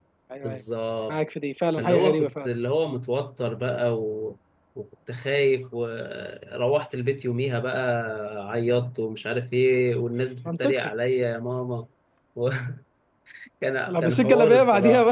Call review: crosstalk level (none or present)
present